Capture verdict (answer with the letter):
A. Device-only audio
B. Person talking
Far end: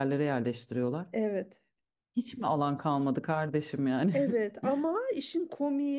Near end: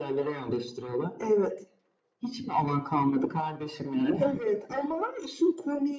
A